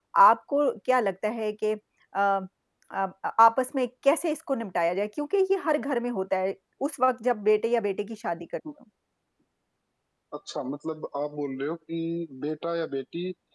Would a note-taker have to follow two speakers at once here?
No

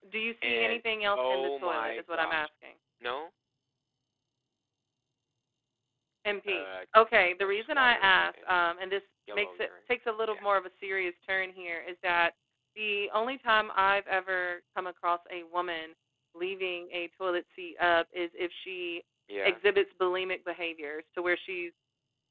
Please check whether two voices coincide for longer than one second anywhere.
Yes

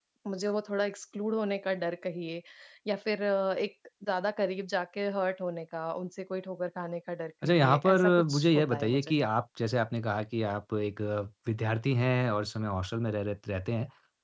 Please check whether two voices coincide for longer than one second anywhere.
Yes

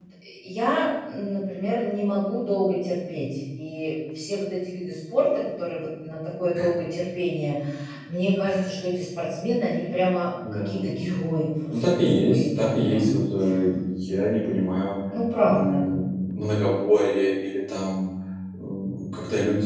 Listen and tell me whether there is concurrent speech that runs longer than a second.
Yes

